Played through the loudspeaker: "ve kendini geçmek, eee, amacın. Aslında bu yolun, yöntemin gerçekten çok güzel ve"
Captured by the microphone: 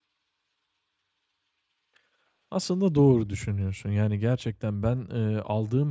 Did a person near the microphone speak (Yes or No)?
Yes